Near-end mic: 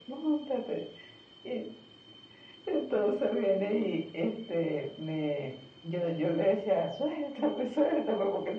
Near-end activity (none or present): none